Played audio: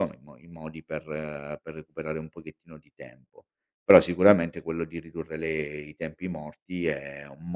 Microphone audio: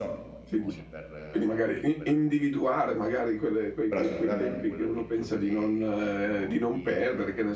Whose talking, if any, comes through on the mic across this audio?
both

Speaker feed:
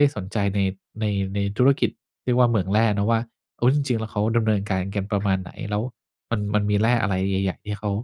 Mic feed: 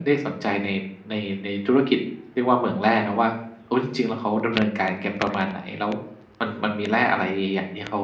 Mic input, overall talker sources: echo only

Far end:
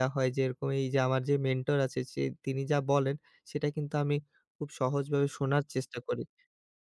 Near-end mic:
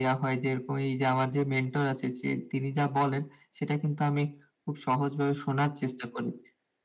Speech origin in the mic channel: echo only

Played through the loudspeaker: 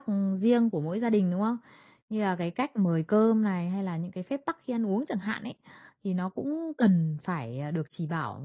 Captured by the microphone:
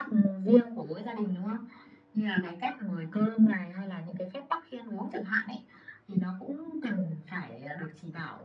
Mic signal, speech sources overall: echo only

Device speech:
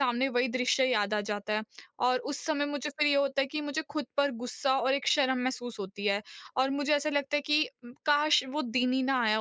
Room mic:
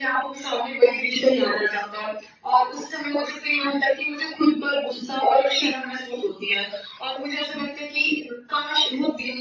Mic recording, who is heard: echo only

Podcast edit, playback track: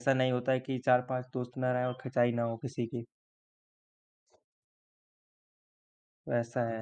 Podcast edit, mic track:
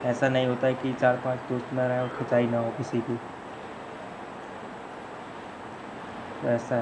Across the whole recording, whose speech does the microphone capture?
echo only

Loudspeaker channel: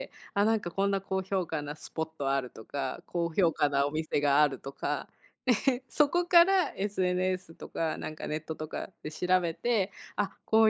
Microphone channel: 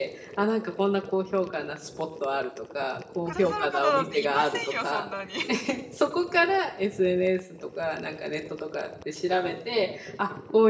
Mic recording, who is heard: both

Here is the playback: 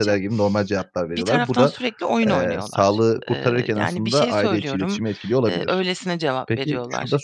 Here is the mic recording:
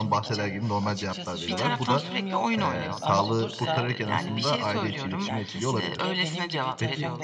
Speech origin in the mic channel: both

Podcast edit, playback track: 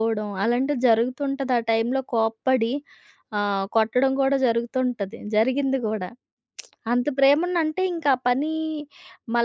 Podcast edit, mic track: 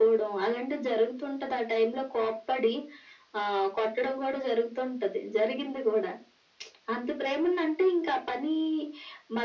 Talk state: echo only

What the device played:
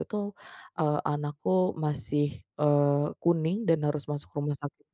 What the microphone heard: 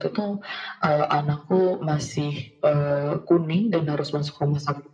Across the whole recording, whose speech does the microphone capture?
echo only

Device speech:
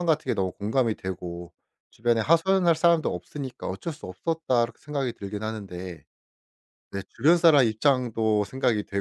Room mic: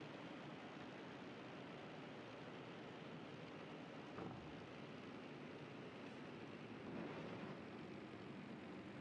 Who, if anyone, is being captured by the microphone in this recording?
neither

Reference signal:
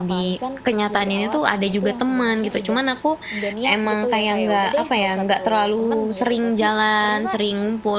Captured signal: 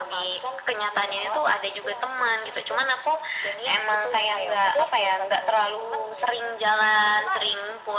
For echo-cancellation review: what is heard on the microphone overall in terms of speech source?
echo only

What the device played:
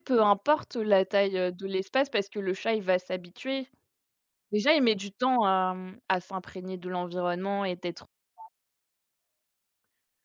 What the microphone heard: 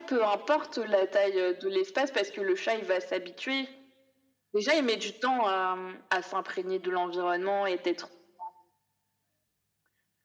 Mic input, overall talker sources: echo only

